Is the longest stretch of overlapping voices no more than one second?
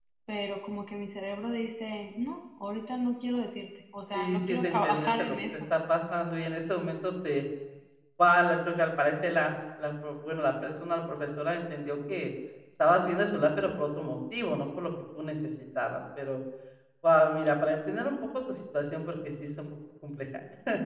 No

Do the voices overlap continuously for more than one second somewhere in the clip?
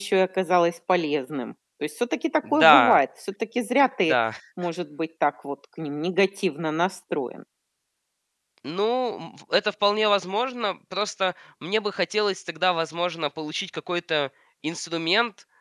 No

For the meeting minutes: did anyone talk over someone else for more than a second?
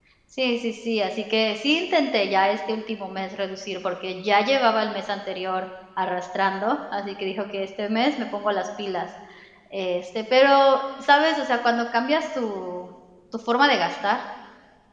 No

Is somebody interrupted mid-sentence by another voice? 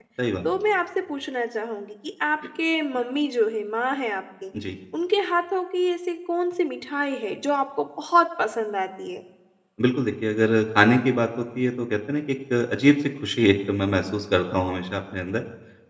No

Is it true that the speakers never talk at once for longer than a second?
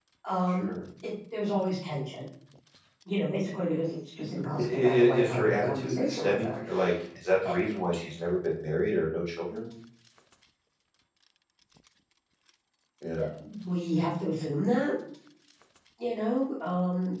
No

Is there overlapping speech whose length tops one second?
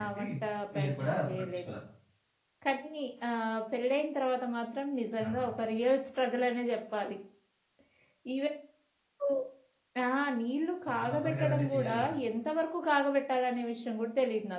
Yes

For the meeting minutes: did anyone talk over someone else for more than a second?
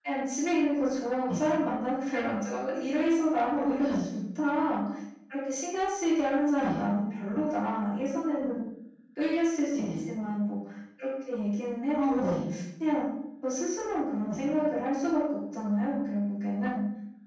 No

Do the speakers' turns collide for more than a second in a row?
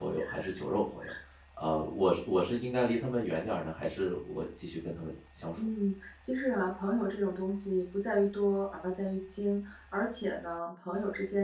No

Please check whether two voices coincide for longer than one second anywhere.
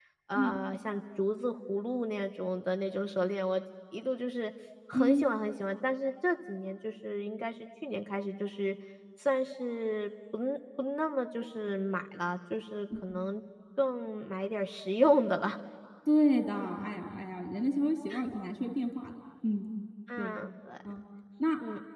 No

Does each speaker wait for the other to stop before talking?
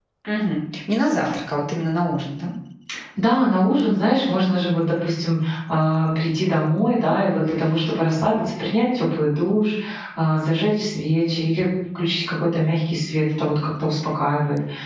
Yes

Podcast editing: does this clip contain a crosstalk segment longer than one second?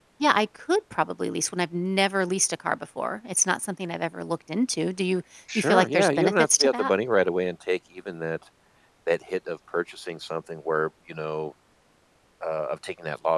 Yes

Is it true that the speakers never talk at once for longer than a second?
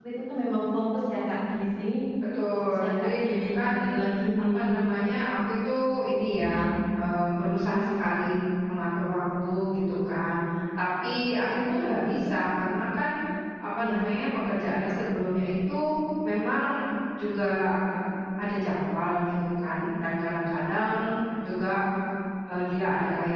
No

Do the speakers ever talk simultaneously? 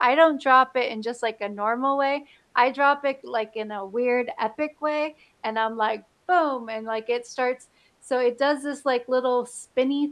No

